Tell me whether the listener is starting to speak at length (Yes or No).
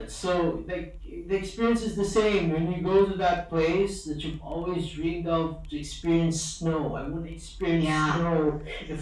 No